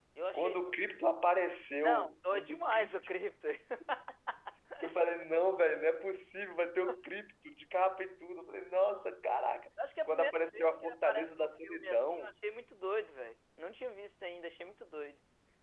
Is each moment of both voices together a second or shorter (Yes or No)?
No